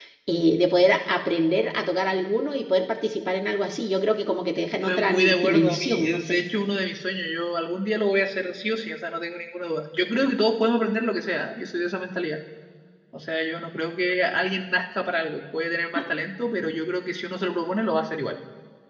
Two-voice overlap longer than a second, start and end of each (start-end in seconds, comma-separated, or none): 4.8-6.4